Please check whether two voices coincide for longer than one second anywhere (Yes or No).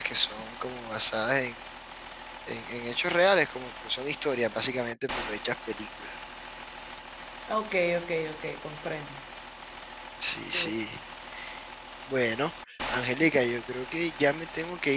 No